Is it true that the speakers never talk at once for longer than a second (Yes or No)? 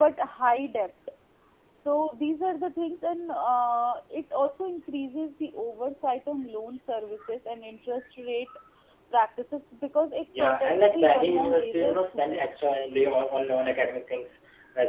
No